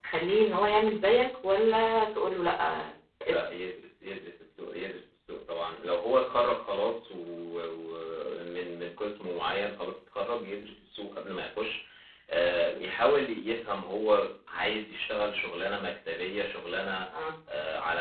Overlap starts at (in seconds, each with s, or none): none